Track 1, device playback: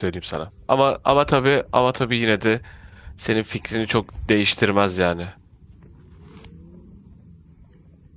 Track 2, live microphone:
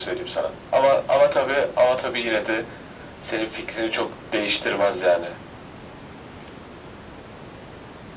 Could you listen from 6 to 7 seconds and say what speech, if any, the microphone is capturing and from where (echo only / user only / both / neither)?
neither